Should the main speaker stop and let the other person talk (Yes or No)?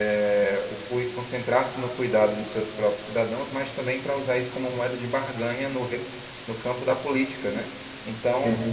No